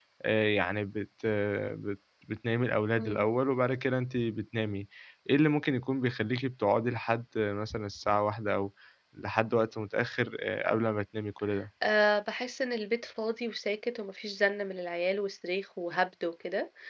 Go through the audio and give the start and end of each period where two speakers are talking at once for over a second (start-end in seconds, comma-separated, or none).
none